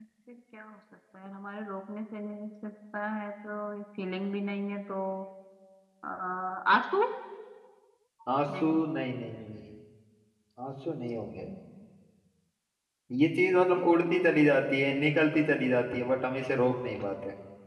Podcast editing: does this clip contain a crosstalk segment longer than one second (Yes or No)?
No